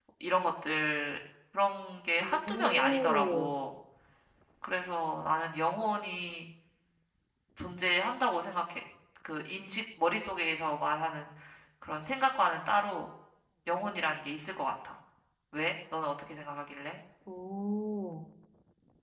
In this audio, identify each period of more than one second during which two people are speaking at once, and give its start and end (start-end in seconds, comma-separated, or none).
2.2-3.5